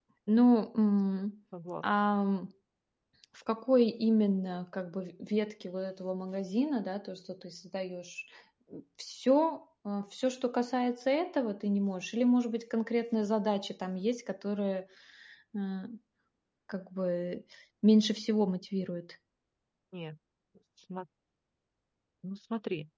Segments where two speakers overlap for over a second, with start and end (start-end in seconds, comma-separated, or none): none